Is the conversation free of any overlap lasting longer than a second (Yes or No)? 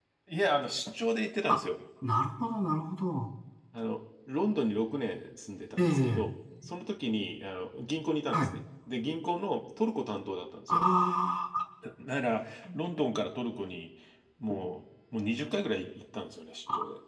Yes